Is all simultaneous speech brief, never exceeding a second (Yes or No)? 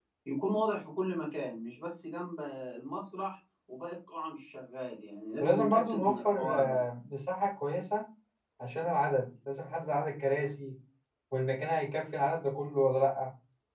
No